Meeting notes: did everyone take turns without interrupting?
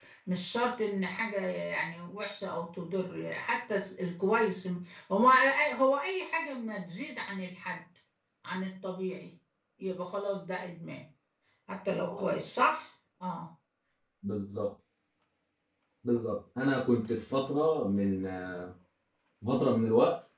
Yes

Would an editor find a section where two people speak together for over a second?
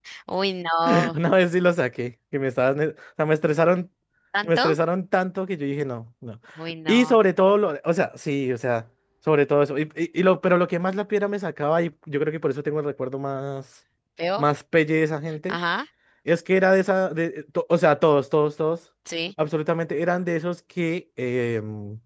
No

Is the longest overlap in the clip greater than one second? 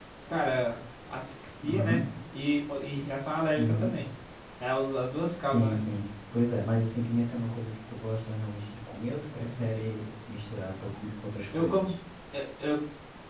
No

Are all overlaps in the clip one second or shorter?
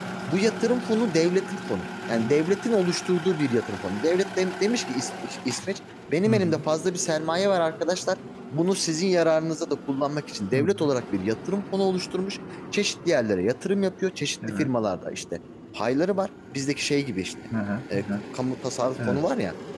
Yes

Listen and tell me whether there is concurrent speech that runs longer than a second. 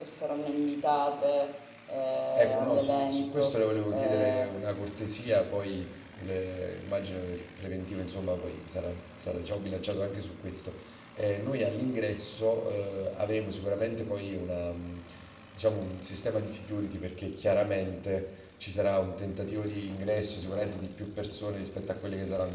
Yes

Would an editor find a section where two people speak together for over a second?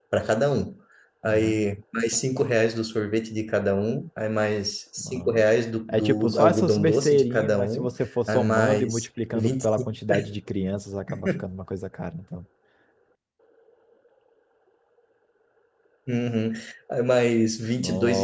Yes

